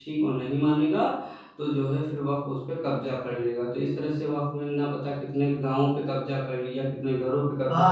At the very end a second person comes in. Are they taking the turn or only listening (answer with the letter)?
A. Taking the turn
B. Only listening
A